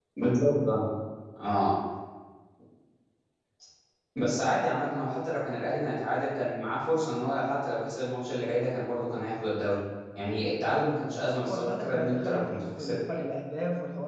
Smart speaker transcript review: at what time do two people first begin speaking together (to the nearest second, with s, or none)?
11 s